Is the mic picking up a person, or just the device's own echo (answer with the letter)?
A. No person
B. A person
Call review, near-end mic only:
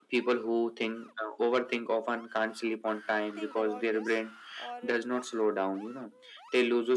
B